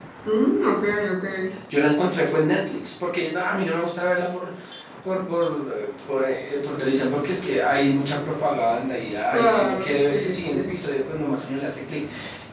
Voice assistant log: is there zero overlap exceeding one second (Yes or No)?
No